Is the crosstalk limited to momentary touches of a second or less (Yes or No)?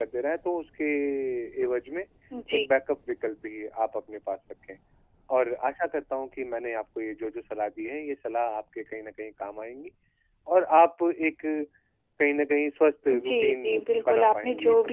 No